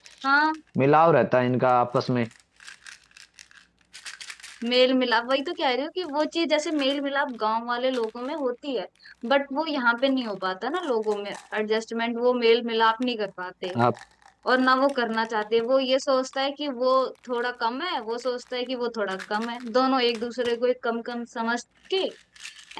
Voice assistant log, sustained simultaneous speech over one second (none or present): none